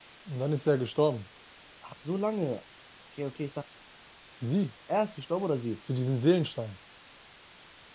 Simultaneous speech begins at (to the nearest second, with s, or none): none